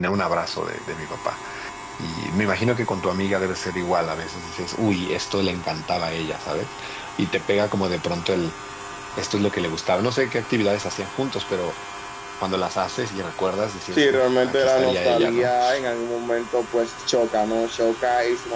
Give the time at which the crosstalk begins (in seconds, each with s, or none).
13.9 s